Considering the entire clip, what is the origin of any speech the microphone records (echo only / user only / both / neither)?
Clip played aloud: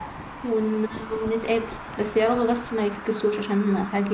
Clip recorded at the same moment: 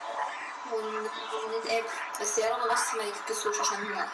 echo only